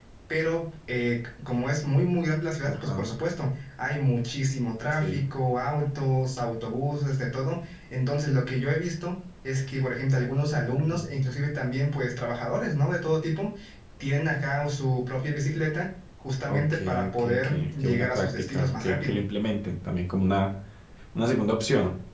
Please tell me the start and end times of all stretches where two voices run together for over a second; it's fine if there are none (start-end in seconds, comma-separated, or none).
16.5-19.1